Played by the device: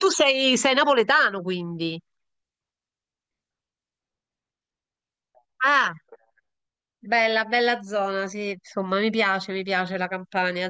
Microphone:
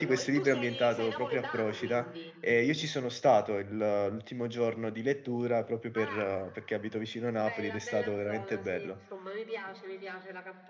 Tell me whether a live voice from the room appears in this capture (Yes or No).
Yes